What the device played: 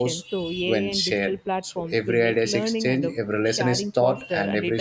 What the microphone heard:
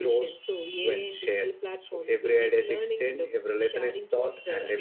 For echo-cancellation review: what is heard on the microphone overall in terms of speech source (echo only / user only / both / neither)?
echo only